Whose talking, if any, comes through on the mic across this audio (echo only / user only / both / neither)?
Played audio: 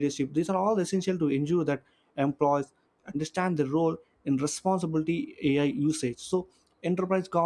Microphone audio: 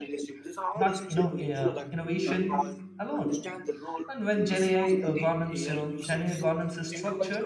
both